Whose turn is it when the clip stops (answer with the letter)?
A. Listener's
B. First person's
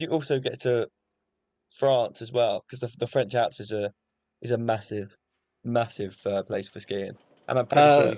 B